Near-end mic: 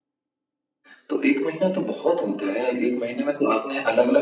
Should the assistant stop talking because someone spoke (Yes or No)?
No